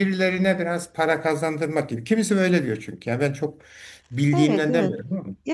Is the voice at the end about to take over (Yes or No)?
Yes